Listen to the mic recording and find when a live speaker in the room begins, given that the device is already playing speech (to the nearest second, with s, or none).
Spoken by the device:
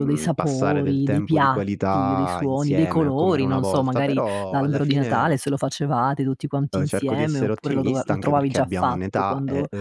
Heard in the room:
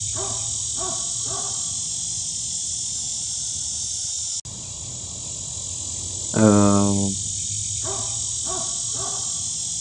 6 s